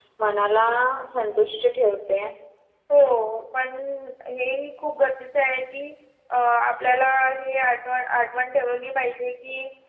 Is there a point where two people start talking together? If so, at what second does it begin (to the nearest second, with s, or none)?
none